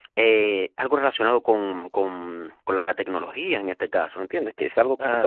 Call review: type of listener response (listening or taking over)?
listening